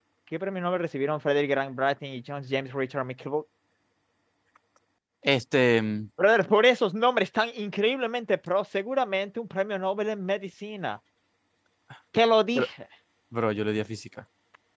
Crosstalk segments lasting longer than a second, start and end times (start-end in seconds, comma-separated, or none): none